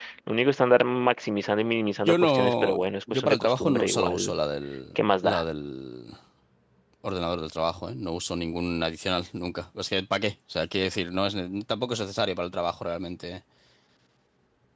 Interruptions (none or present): present